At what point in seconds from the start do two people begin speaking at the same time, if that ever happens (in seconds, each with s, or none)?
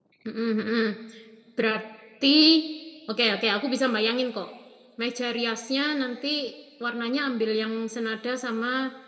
none